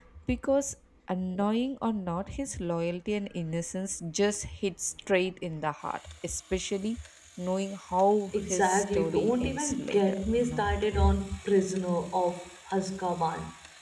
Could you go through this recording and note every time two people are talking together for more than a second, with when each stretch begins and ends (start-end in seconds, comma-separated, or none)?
8.3-10.7